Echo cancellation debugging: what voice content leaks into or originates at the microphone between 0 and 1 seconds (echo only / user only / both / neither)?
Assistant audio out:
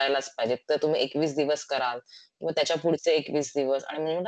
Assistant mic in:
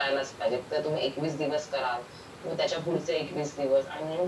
echo only